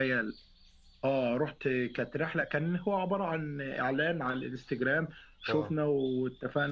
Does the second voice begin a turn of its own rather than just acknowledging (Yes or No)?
No